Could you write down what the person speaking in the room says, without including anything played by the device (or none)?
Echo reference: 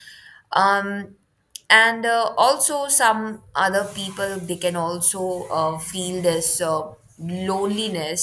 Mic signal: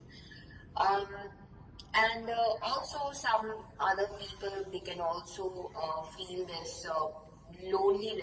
none